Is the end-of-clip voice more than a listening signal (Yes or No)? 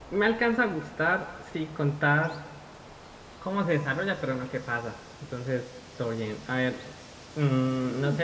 No